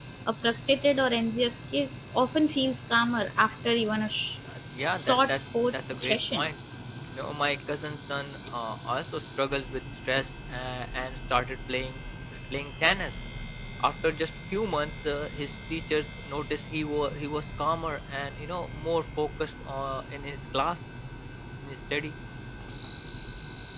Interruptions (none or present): present